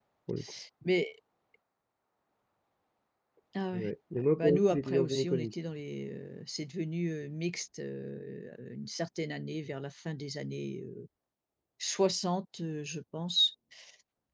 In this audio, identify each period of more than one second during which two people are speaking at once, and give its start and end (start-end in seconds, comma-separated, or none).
3.7-5.5